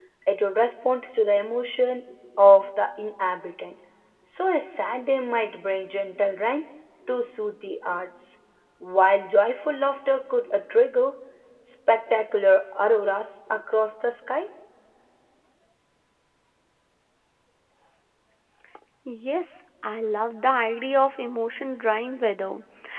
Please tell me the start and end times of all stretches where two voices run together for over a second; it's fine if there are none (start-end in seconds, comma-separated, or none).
none